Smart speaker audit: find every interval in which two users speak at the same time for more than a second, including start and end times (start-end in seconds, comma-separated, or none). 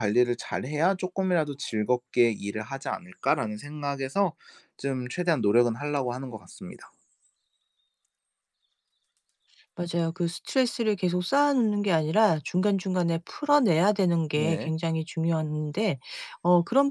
none